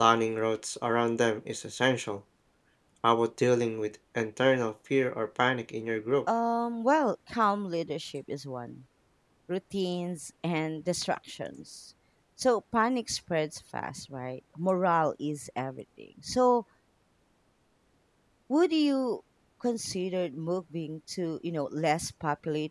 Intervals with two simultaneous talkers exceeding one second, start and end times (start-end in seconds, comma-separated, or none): none